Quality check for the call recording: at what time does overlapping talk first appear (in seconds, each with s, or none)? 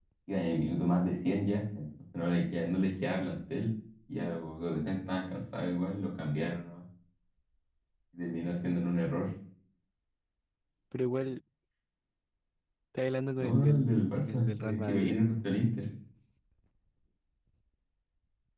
13.4 s